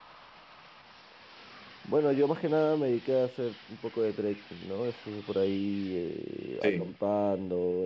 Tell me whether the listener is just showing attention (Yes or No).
Yes